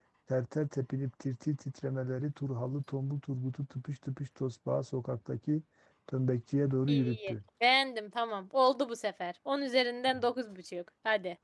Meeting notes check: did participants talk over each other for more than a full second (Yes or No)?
No